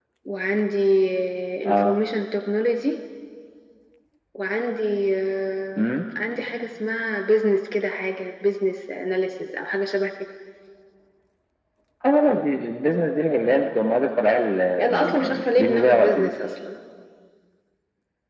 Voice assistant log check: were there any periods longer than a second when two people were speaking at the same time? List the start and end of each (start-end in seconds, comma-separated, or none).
14.8-16.3